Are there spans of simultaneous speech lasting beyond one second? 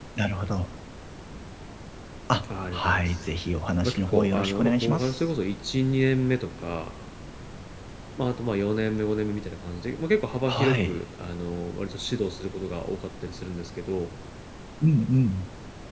Yes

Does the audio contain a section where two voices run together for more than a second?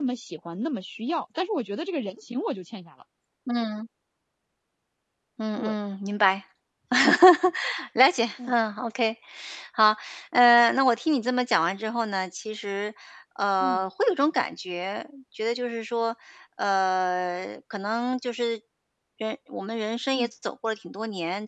No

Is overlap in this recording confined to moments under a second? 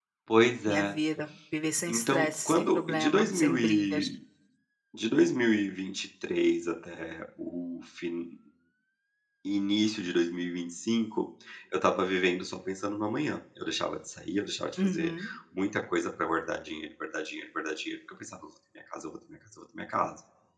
No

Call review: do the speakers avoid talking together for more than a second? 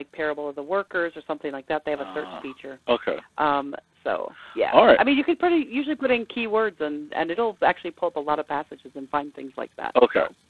Yes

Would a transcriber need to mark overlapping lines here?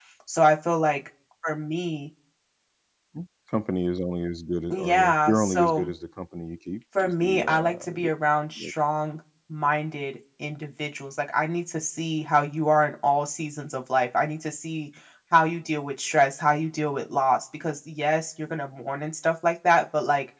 Yes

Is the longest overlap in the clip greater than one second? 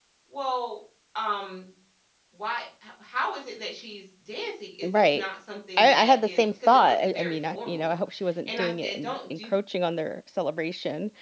Yes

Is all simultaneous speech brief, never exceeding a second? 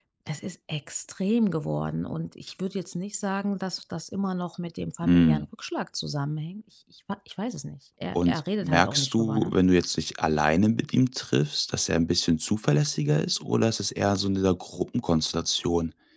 No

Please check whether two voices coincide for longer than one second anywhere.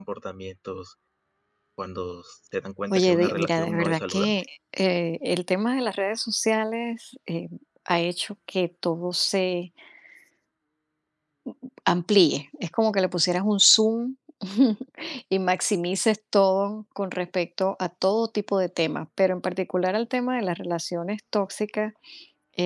Yes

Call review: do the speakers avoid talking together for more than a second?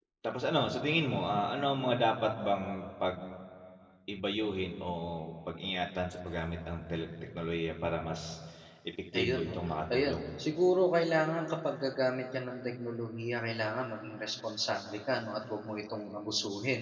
Yes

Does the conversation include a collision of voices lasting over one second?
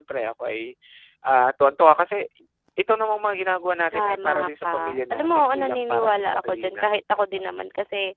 Yes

